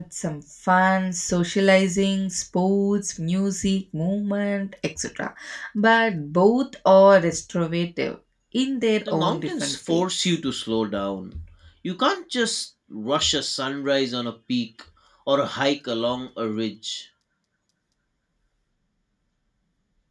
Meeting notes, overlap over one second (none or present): present